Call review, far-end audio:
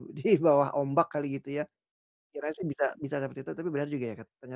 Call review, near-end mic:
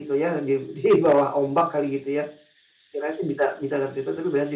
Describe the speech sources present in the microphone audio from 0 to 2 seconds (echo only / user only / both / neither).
echo only